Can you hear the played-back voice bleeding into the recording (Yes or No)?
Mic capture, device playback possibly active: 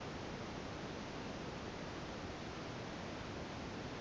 No